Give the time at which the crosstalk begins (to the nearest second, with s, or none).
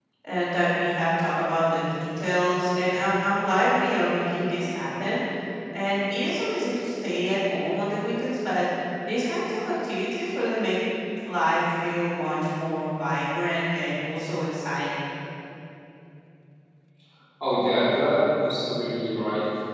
none